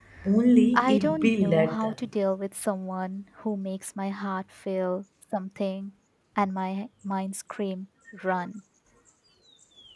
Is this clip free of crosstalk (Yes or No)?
No